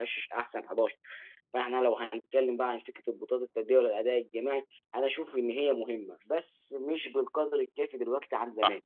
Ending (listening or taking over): taking over